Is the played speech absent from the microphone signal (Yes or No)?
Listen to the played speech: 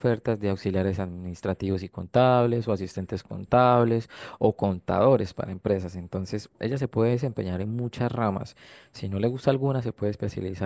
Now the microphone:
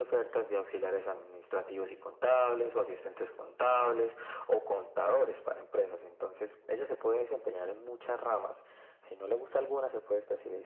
No